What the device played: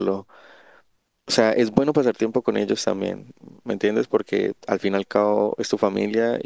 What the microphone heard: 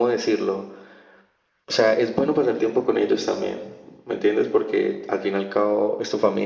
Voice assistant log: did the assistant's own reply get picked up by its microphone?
Yes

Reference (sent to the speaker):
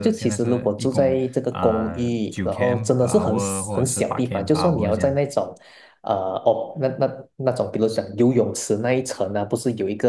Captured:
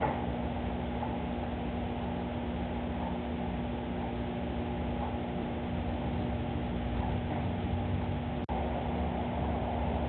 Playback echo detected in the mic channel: No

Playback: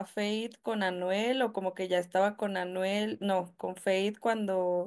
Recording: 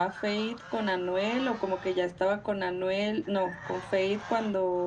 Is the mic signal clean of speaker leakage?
No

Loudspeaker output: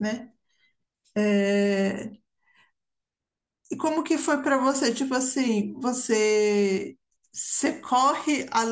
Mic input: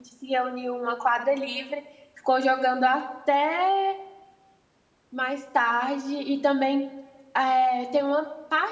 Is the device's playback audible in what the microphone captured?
No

